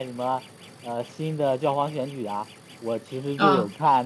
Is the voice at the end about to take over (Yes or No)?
No